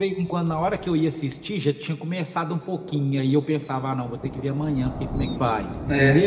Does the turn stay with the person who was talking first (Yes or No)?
No